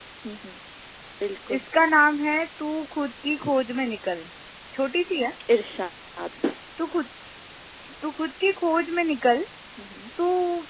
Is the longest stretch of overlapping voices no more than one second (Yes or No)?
Yes